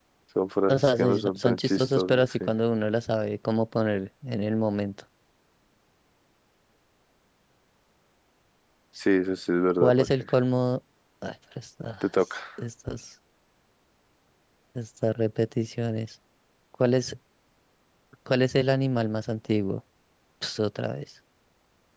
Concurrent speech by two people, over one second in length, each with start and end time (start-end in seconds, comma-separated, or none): 0.7-2.5